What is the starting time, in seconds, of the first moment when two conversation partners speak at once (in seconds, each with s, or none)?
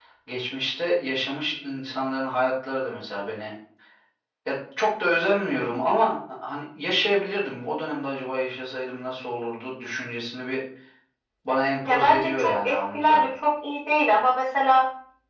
11.9 s